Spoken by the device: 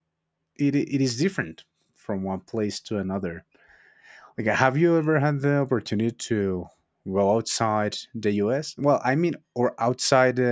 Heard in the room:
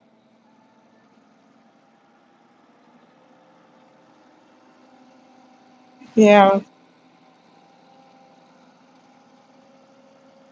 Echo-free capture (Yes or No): Yes